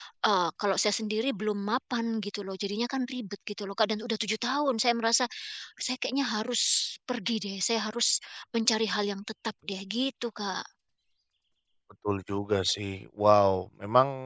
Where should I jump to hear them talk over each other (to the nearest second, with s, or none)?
none